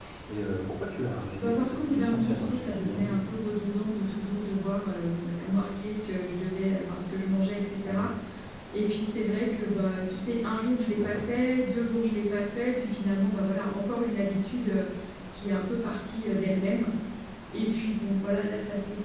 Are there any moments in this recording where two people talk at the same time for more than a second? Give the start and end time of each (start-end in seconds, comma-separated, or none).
1.4-3.2